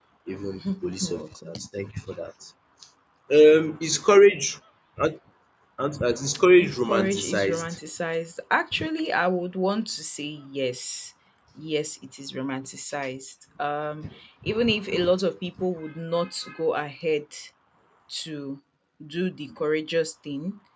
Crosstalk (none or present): present